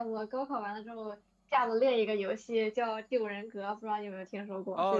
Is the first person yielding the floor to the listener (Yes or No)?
Yes